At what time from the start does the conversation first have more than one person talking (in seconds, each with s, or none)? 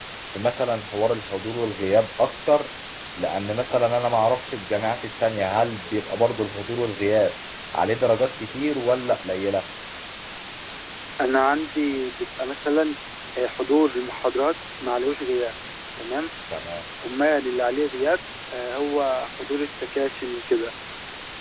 none